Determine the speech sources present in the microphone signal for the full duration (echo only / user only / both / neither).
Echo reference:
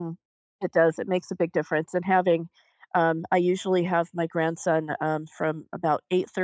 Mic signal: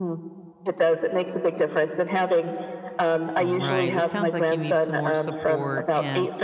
both